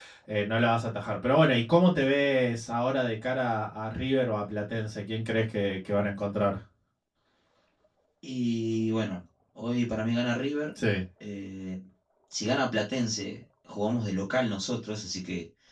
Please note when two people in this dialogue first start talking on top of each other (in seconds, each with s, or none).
none